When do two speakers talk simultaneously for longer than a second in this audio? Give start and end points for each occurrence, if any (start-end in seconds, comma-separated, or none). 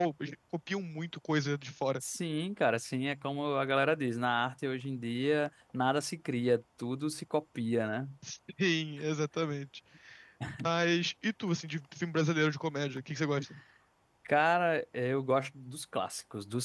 none